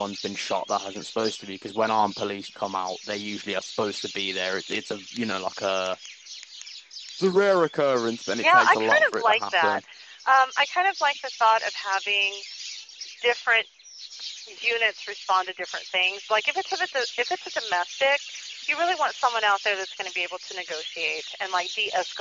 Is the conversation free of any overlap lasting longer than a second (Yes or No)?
No